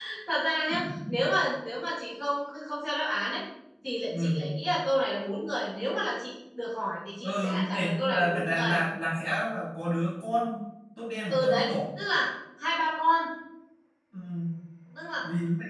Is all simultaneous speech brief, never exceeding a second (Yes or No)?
No